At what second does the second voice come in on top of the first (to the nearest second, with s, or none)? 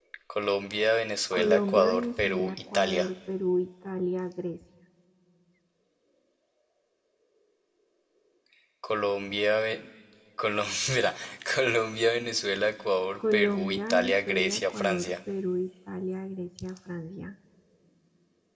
1 s